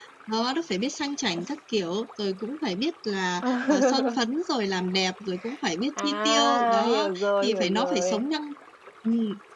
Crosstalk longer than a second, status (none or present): present